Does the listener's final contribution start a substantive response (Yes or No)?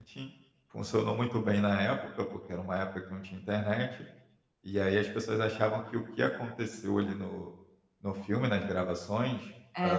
No